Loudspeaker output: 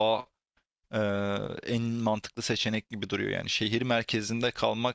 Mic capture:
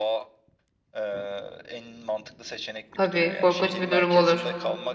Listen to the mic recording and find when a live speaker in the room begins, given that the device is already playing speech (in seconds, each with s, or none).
2.9 s